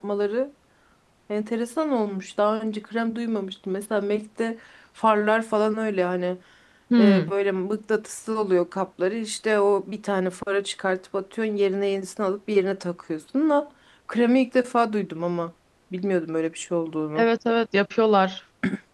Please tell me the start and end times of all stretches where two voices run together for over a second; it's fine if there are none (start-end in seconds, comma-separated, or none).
none